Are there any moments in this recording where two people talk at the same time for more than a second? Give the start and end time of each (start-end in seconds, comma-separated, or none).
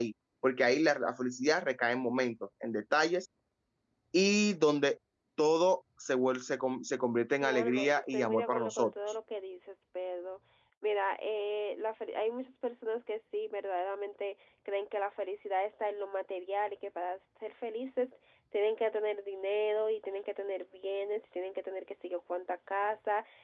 7.4-8.9